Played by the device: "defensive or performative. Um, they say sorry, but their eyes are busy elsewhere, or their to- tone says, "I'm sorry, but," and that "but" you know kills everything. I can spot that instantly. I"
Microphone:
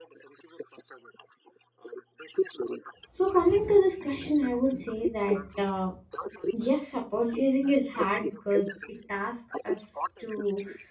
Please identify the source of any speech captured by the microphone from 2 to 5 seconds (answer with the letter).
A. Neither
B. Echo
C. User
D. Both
D